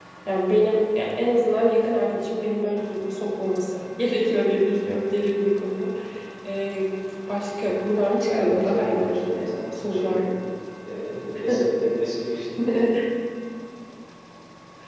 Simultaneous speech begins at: 8.2 s

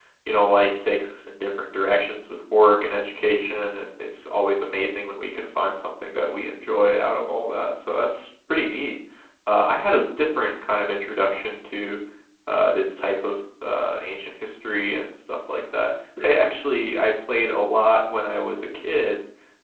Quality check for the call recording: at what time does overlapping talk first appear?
none

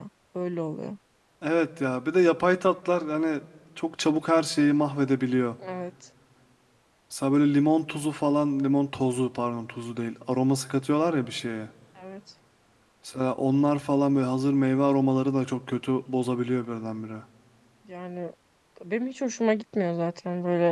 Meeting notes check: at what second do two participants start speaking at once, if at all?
none

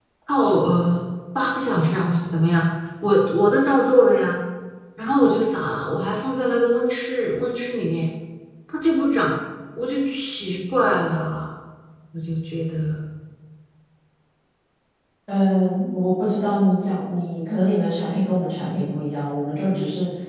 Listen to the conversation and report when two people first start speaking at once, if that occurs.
none

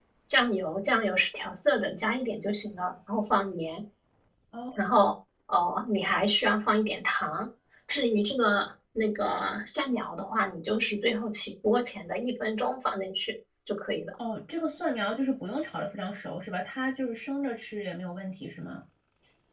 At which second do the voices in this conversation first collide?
none

